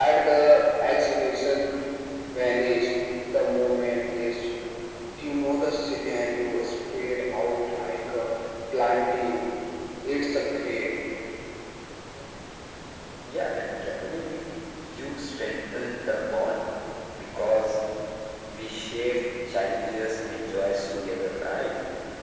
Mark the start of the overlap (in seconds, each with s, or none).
none